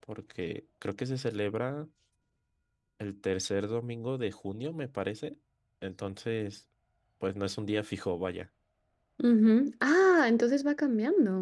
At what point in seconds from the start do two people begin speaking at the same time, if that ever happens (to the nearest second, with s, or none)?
none